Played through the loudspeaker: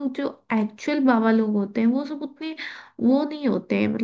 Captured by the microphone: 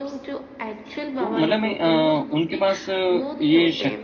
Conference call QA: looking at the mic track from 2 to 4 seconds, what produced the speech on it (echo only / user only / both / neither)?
both